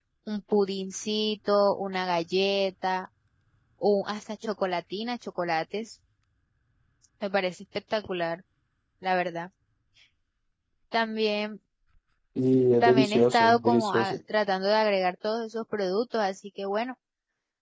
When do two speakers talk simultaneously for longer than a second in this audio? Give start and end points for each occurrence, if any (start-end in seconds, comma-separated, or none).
12.8-14.2